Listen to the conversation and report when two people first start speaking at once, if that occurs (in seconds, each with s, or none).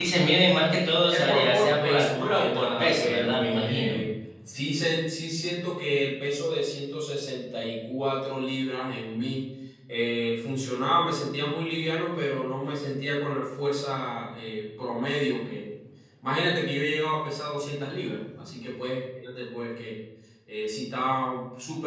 1.1 s